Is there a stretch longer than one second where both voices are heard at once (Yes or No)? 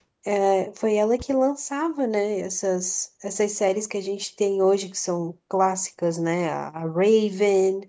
No